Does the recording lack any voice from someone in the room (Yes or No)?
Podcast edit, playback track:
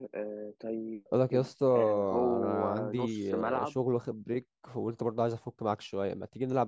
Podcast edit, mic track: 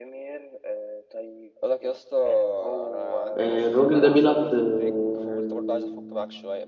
No